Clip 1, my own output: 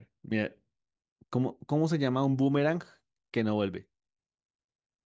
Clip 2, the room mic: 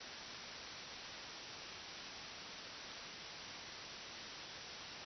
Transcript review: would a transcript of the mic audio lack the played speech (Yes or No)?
Yes